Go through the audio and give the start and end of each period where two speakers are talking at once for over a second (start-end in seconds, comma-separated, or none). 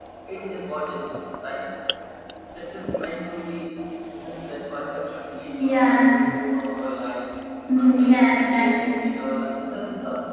7.8-9.0